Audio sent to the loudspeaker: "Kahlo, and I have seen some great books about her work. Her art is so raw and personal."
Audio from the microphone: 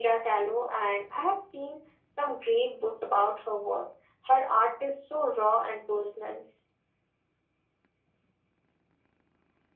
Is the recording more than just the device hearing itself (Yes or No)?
No